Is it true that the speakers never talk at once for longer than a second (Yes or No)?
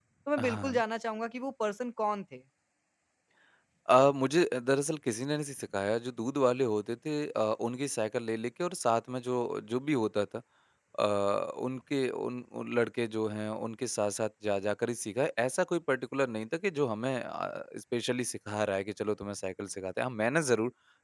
Yes